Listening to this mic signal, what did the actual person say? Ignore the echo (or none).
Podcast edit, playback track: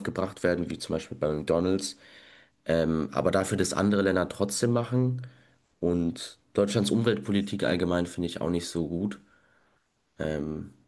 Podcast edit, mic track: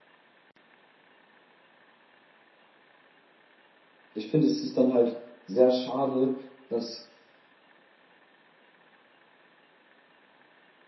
ich finde, es ist dann halt sehr schade, dass